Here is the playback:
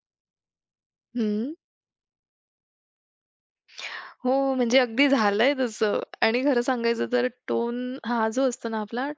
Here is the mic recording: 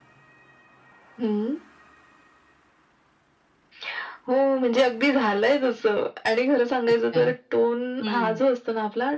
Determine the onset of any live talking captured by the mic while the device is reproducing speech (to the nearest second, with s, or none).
7 s